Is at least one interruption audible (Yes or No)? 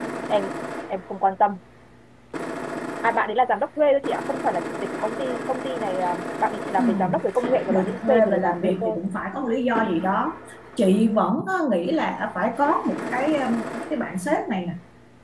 Yes